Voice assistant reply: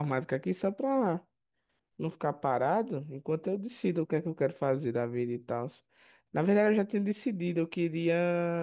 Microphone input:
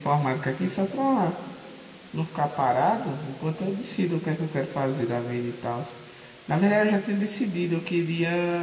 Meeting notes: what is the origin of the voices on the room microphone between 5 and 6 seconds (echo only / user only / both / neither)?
echo only